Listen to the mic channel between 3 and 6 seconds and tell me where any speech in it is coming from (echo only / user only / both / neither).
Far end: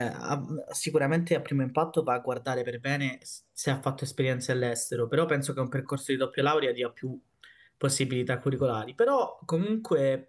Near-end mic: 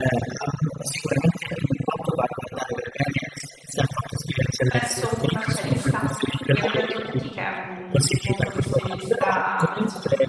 both